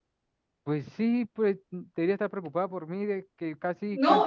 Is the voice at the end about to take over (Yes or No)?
Yes